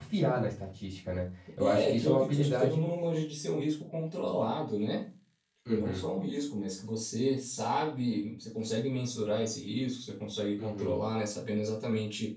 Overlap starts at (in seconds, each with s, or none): 1.6 s